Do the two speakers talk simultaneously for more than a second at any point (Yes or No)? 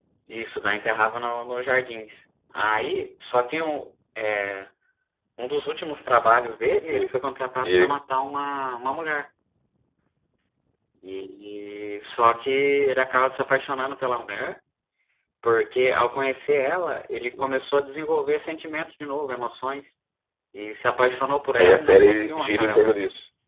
Yes